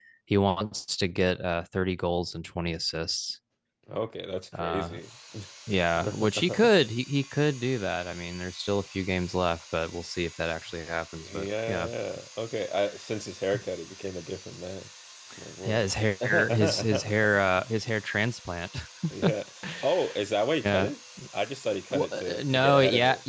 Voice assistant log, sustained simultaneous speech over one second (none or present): present